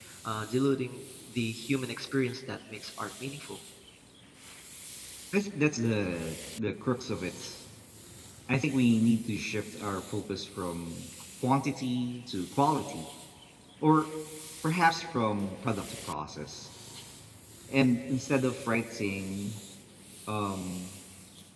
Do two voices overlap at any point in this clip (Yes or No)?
No